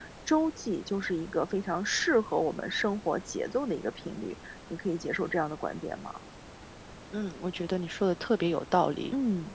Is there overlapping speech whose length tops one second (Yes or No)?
No